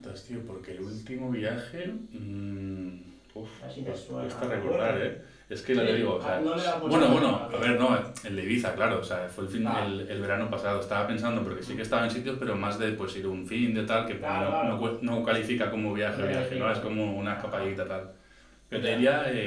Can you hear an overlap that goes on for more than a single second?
Yes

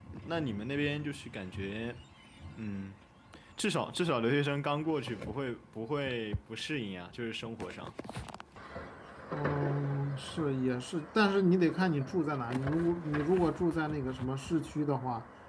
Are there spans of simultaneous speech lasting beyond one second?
No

